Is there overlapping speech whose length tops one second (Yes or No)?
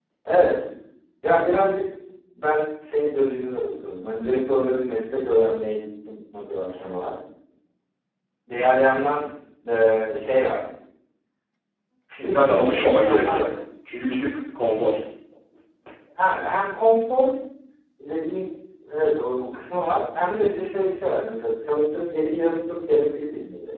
Yes